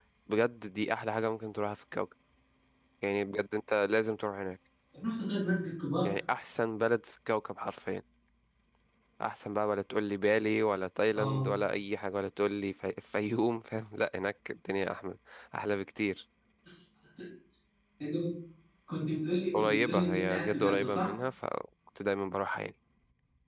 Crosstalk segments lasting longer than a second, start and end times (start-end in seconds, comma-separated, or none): 19.5-21.1